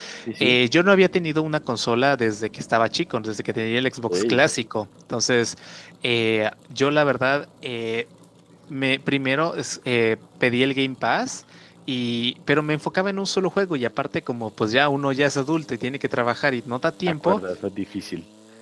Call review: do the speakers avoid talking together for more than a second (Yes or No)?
Yes